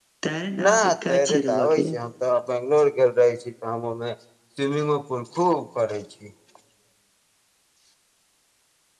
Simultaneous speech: Yes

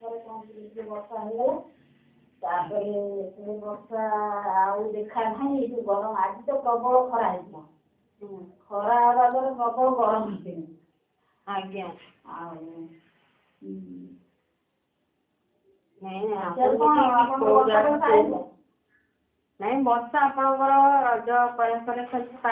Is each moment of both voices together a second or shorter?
No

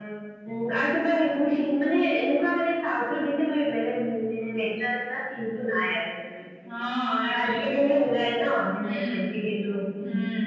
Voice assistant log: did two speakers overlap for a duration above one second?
No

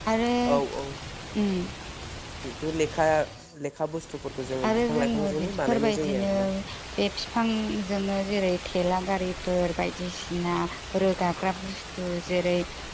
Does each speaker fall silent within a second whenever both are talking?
No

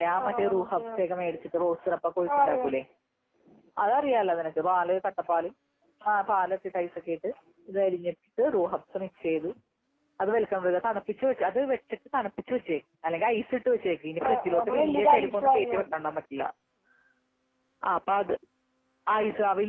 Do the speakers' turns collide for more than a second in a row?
Yes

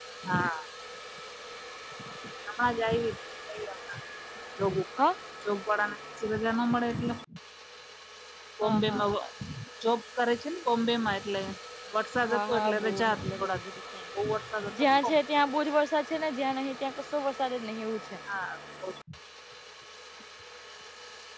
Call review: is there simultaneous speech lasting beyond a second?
Yes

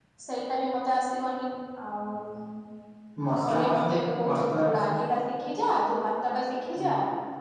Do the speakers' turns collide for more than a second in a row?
Yes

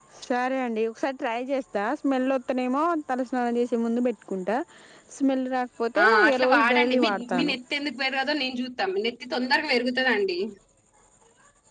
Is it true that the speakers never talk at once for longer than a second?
No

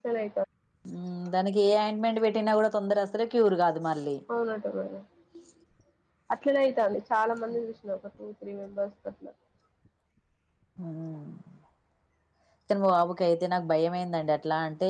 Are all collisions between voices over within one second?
Yes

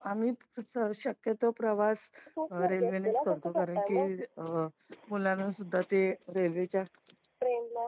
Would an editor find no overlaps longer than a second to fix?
No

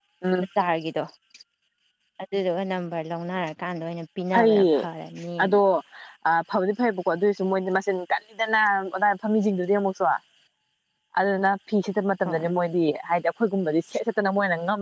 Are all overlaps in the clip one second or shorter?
Yes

